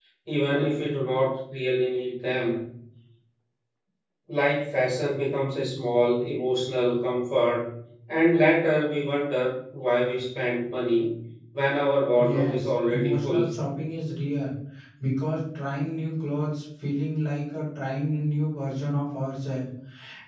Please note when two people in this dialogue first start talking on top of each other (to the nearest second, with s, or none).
12 s